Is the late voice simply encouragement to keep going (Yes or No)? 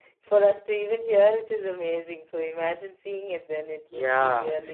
No